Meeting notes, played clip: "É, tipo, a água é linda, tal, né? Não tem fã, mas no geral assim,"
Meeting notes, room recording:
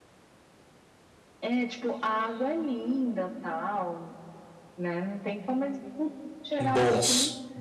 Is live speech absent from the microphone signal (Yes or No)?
No